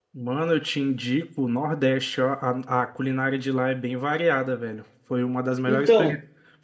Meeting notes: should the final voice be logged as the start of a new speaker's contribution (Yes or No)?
No